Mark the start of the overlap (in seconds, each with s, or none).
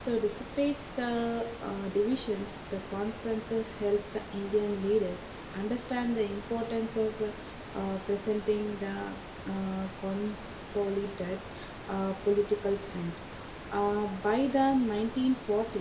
none